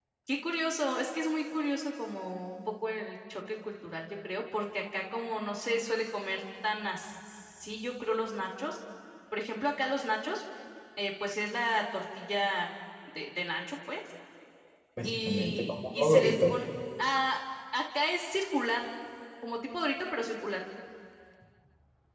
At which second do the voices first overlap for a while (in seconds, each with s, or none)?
15.0 s